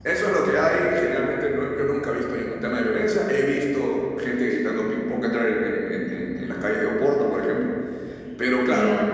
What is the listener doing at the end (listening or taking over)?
listening